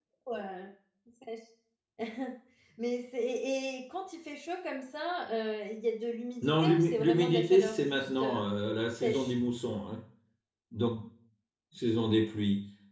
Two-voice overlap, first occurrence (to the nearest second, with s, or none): 6 s